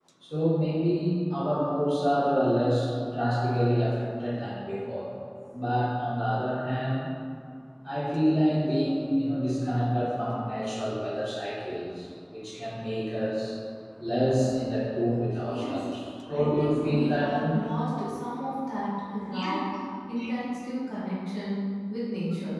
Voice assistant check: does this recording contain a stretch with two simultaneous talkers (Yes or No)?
Yes